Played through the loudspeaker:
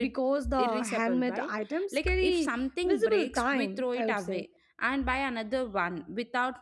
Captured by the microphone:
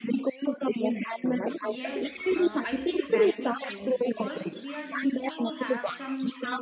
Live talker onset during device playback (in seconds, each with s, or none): 1.6 s